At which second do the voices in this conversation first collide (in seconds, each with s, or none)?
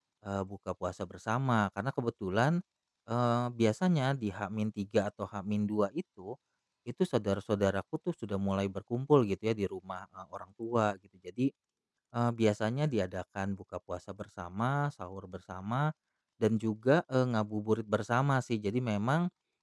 none